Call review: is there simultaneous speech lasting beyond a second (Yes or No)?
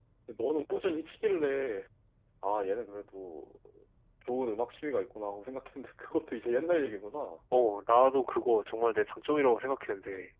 No